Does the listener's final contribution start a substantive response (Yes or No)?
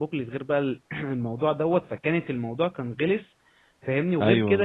No